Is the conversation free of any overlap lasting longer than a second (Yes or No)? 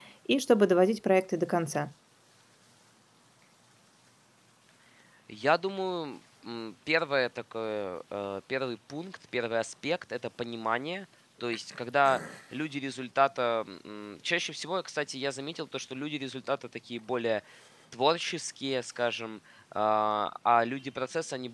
Yes